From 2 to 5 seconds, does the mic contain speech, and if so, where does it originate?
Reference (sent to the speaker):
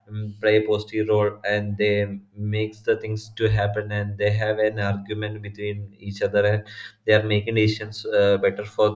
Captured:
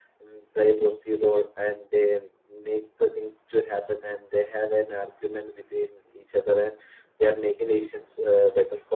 echo only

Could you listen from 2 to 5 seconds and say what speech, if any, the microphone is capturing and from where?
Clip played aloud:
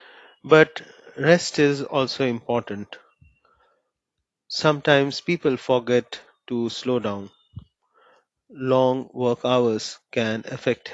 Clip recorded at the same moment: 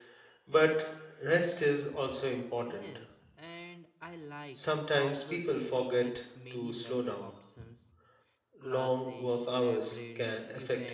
both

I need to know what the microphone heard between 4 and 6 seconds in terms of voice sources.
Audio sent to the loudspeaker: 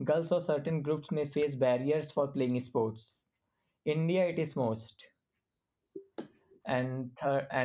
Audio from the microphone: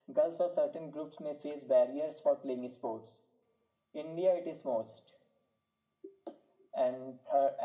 echo only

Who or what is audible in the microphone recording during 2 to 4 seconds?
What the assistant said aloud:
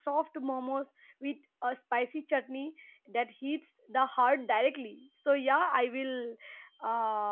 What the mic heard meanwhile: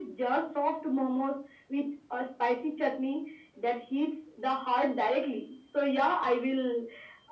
echo only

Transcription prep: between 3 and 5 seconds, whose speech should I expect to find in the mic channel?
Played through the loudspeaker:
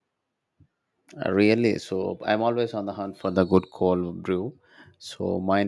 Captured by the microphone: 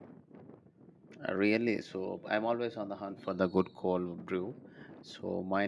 echo only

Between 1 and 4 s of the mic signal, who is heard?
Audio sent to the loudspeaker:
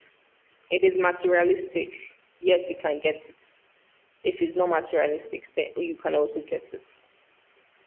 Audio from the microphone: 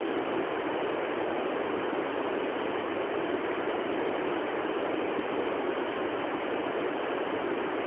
neither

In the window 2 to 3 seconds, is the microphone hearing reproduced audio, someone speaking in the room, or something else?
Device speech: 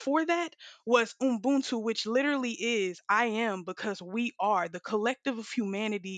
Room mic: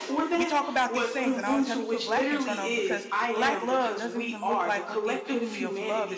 both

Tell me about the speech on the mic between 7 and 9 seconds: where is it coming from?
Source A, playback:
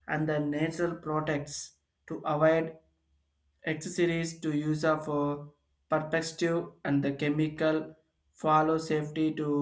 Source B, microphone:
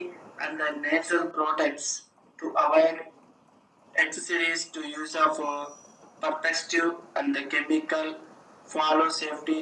echo only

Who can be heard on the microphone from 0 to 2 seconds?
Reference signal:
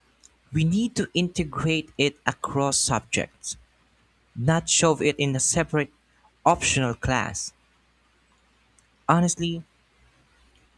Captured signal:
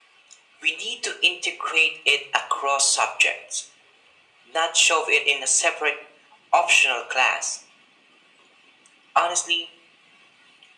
echo only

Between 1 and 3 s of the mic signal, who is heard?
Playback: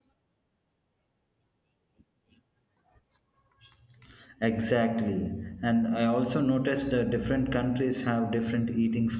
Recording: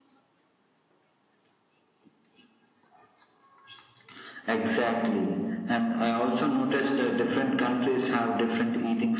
neither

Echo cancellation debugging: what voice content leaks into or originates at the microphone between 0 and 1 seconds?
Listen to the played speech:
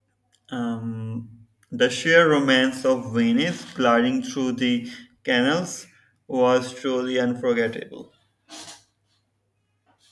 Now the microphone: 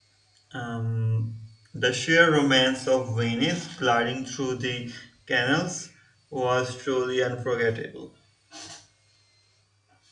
echo only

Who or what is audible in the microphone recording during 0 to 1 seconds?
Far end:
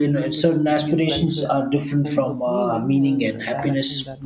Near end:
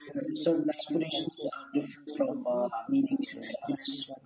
echo only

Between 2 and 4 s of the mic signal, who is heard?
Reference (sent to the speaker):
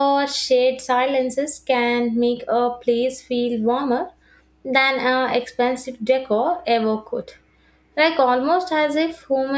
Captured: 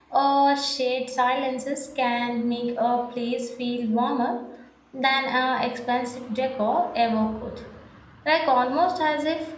echo only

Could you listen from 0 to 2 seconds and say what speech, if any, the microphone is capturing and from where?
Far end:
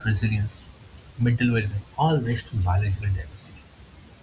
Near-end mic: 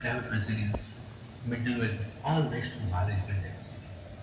echo only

